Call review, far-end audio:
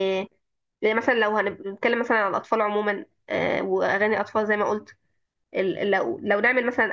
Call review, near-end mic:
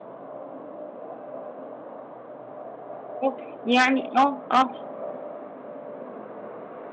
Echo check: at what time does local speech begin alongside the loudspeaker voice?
3.2 s

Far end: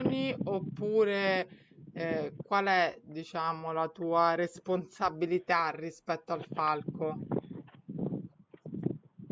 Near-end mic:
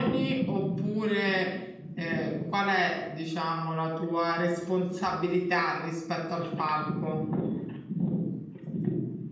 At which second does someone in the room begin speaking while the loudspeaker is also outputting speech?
none

